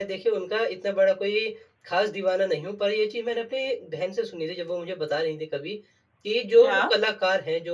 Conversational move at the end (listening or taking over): listening